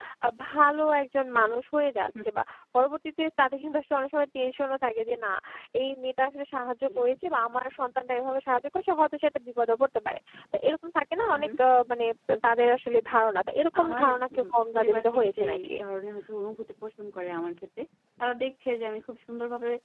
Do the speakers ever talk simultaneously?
Yes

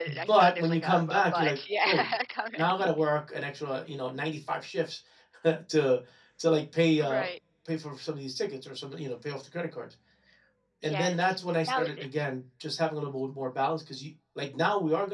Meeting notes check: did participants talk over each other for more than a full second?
Yes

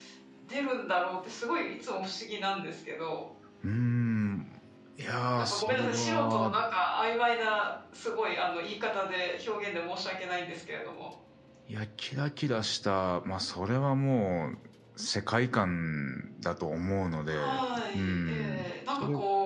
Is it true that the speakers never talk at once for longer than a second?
No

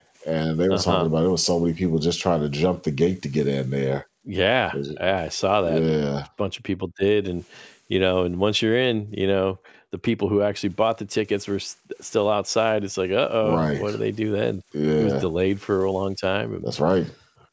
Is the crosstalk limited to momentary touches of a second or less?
Yes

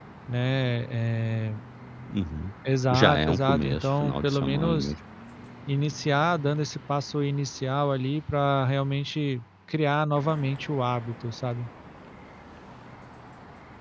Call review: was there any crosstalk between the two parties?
Yes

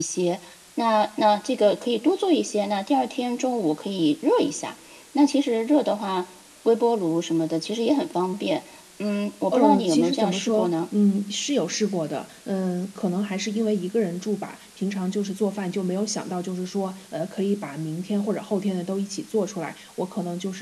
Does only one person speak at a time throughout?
No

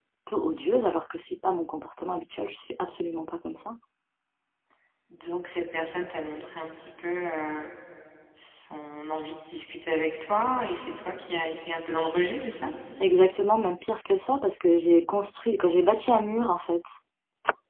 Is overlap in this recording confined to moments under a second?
Yes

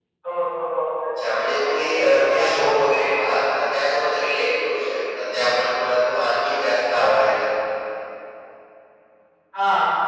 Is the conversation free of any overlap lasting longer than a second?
No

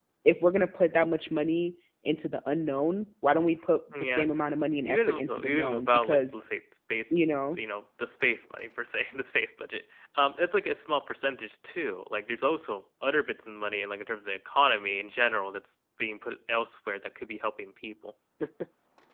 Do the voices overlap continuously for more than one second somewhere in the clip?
Yes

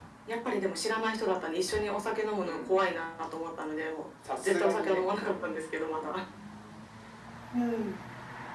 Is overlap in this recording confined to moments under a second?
No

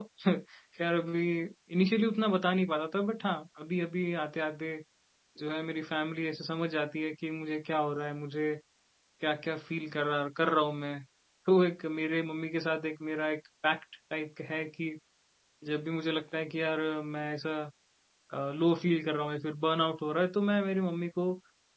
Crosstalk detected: No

